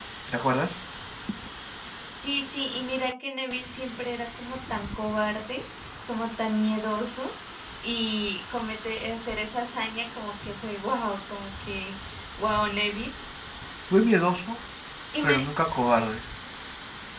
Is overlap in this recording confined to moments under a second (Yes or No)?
Yes